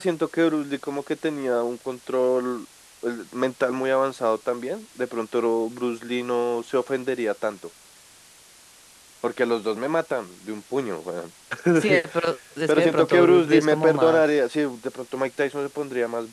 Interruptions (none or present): present